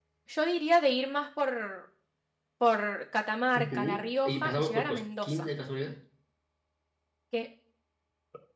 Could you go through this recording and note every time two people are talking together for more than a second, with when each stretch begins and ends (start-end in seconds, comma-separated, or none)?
3.6-5.5